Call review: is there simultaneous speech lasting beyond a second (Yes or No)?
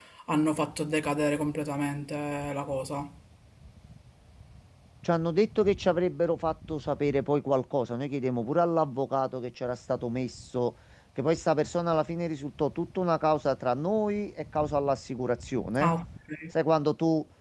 No